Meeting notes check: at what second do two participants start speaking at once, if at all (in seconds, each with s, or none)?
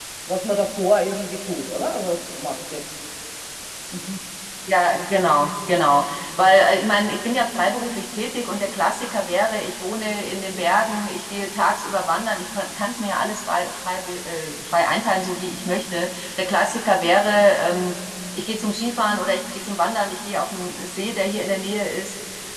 none